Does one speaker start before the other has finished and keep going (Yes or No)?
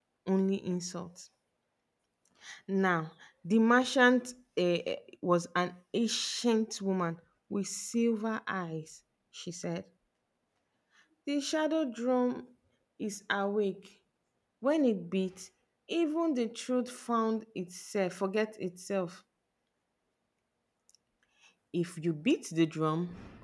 No